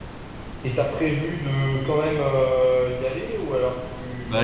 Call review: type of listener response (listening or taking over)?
taking over